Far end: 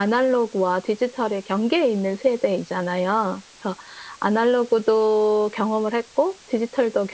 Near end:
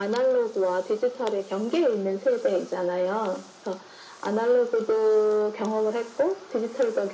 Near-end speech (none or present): none